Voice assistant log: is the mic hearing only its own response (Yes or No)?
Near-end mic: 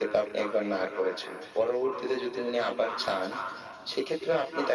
Yes